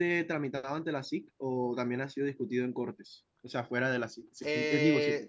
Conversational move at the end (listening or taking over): taking over